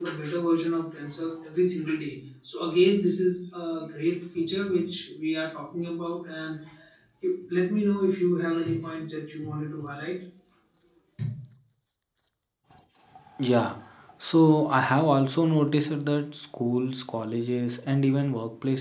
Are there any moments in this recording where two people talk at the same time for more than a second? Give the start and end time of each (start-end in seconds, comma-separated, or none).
none